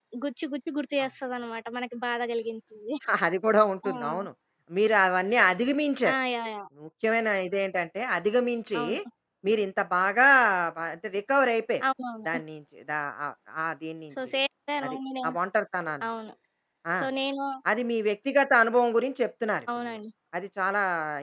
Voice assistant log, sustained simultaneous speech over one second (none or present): none